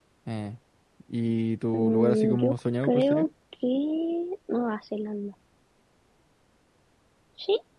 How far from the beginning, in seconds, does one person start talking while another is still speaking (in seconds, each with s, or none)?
1.7 s